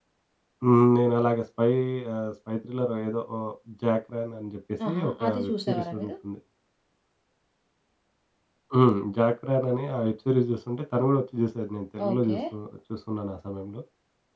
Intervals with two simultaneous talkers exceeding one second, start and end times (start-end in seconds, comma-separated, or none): 4.9-6.1